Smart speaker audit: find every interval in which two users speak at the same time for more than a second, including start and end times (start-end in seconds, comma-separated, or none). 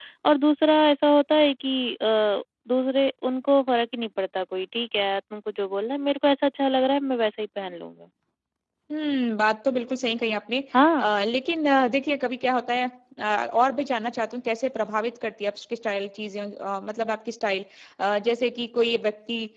none